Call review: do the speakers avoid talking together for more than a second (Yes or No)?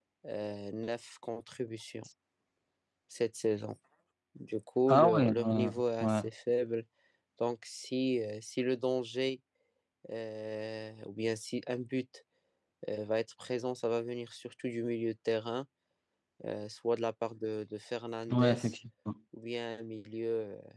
No